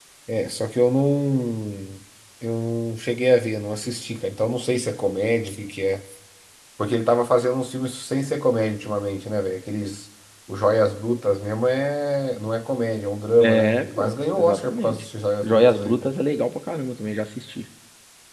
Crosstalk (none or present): present